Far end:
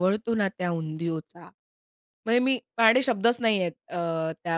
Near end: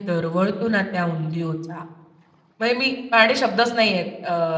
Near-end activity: none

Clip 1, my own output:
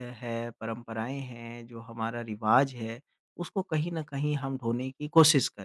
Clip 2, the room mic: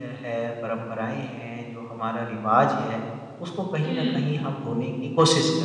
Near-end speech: present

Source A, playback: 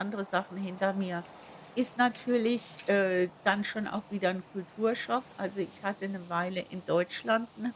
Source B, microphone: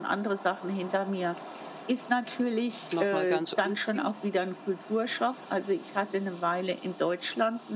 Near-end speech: present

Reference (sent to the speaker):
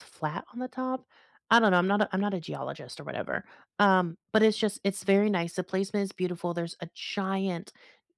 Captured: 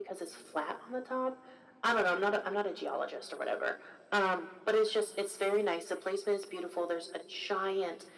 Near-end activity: none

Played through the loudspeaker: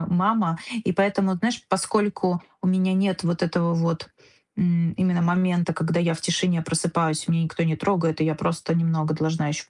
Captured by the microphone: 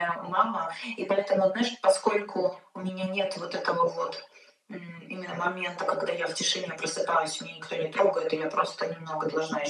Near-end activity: none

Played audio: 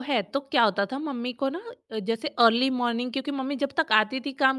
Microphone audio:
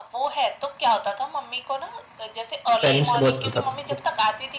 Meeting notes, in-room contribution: present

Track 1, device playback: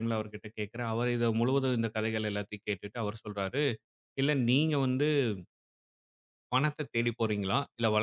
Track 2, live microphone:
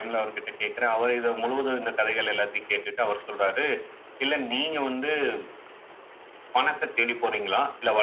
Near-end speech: none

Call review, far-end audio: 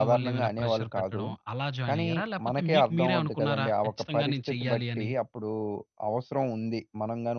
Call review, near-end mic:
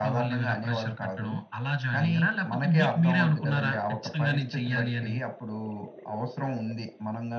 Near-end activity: none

